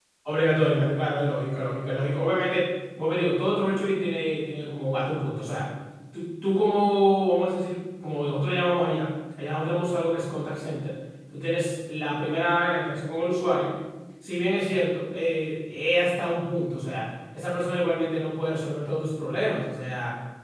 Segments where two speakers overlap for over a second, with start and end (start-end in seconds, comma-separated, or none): none